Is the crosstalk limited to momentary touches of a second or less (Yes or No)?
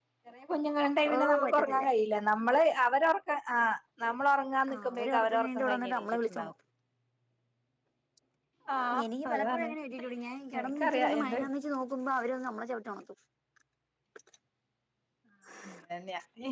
No